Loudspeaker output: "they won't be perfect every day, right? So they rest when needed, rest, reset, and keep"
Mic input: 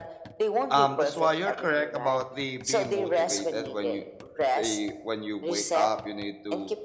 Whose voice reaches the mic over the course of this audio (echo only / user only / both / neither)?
both